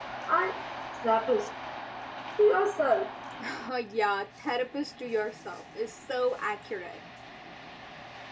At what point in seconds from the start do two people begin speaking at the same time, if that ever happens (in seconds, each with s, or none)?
none